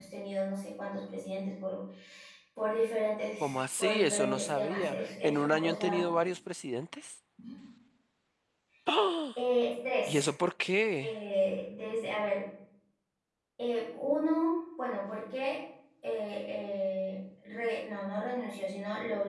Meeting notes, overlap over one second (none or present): present